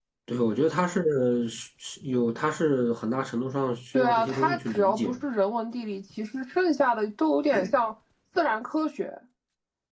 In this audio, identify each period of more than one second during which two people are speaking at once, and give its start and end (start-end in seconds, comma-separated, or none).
3.9-5.2